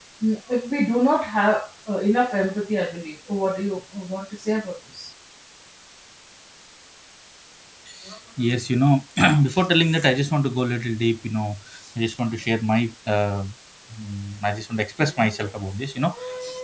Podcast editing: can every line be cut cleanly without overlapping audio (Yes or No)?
Yes